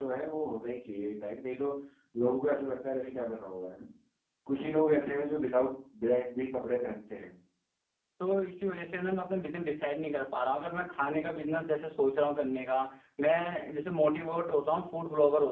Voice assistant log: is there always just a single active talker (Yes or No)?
Yes